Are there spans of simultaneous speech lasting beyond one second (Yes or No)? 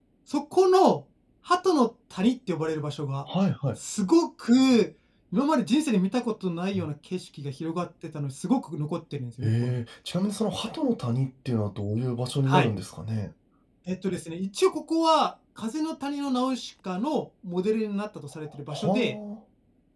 No